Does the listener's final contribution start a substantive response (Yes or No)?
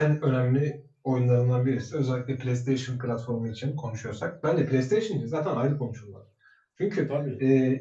No